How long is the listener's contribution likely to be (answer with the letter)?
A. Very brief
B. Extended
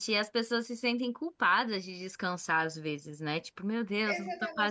B